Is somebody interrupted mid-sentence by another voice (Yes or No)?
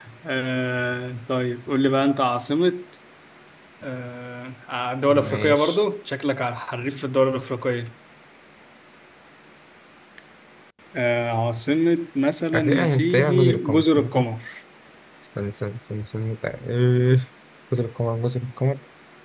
Yes